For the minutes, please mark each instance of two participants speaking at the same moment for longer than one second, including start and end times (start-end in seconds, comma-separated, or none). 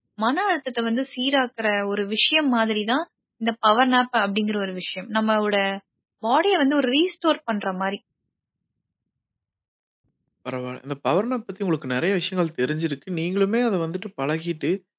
none